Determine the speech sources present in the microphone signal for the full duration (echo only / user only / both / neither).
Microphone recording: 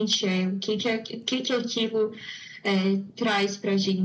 echo only